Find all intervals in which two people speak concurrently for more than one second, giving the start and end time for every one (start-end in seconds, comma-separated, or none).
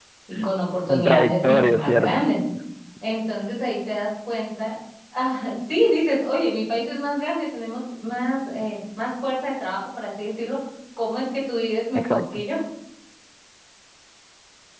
0.9-2.2